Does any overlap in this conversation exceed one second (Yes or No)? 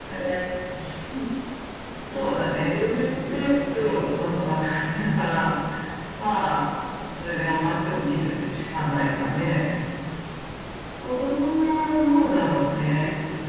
Yes